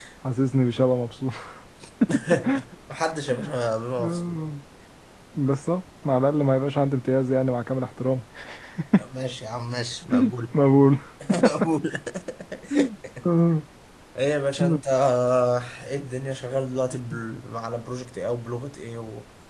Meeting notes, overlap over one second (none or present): none